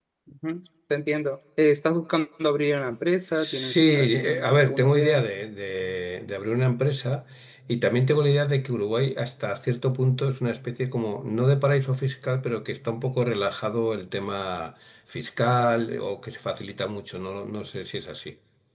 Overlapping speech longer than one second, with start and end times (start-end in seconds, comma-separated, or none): 3.4-5.2